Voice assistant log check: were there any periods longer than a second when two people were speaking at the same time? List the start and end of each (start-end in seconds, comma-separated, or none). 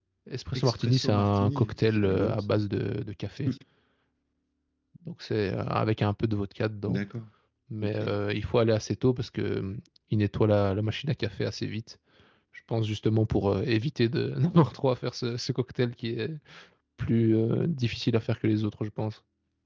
0.6-2.5